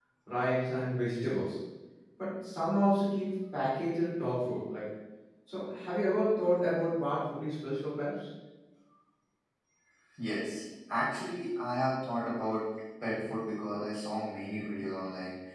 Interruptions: none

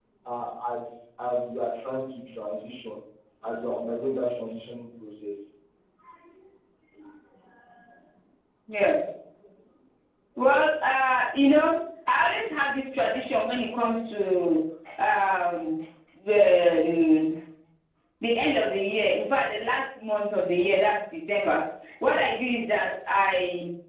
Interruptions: none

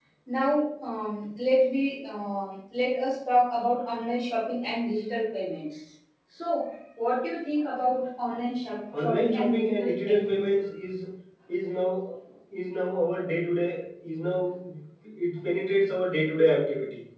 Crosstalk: present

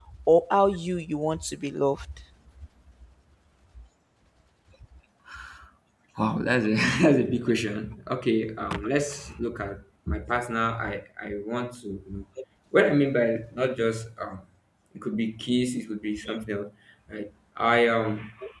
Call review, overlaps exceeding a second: none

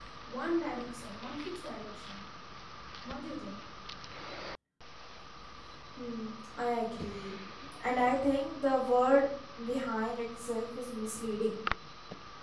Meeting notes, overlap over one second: none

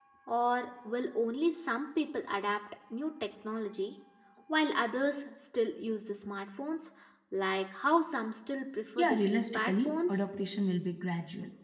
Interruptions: present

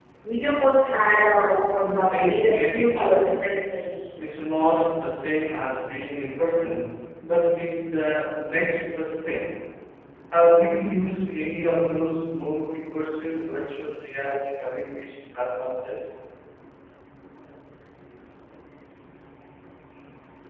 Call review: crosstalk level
present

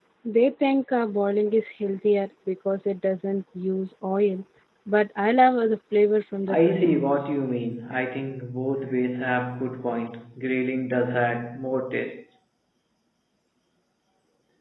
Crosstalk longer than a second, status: none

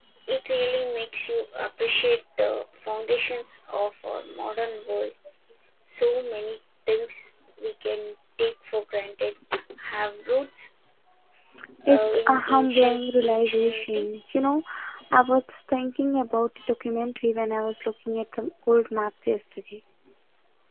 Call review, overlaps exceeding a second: present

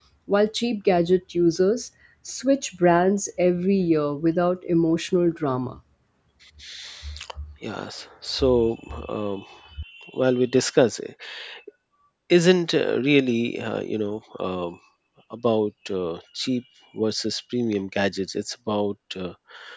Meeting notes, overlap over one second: none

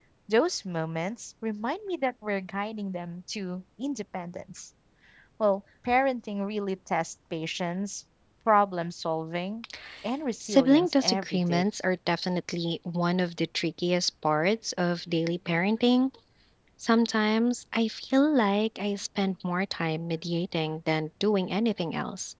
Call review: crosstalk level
present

